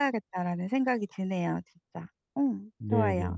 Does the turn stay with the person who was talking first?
No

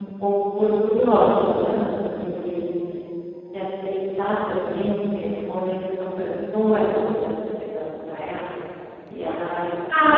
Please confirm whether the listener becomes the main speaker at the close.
Yes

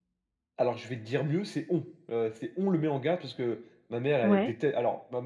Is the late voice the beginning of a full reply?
No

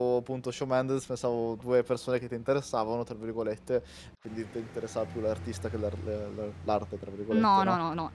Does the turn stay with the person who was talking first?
No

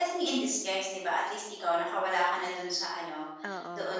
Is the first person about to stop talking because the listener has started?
No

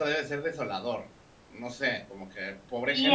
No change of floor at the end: No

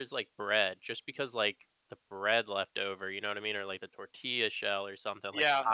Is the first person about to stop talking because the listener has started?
Yes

